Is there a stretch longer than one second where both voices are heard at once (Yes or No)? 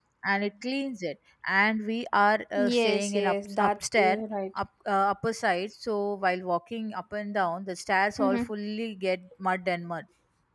Yes